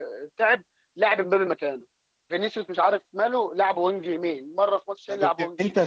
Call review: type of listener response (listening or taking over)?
taking over